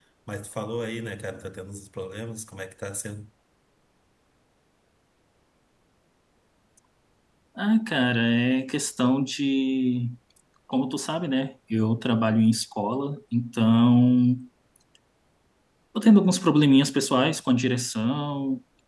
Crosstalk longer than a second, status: none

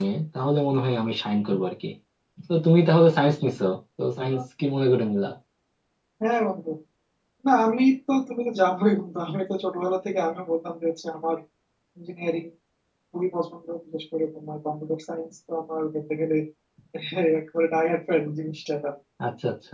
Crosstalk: none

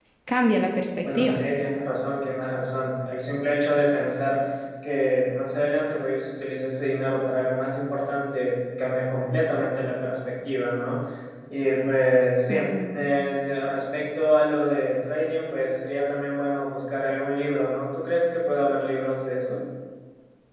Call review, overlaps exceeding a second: none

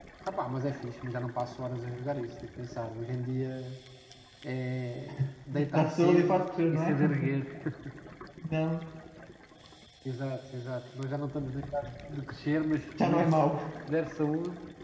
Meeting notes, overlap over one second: present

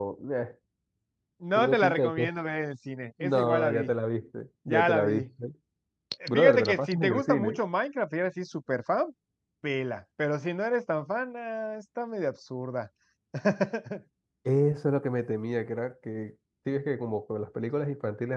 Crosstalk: present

